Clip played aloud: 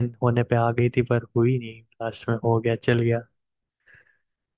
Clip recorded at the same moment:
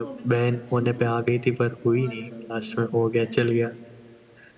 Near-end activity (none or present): present